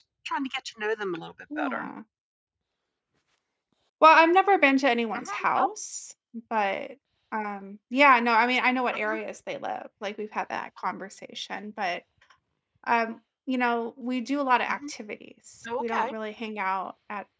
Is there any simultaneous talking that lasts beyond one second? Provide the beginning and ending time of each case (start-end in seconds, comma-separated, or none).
none